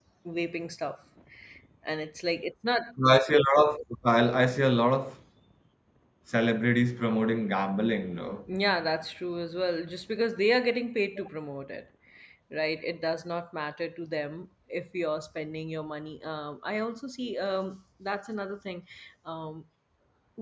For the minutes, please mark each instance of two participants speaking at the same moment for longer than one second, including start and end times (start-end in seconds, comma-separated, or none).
none